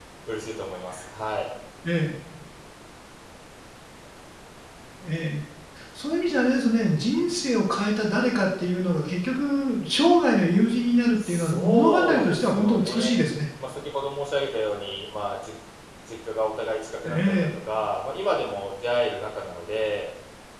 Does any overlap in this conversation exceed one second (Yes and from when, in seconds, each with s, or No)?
Yes, from 11.3 s